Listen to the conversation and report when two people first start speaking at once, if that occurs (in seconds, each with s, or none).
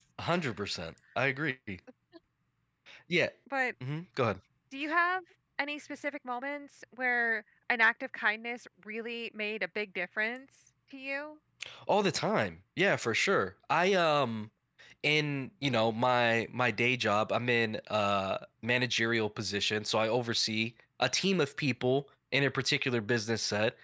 none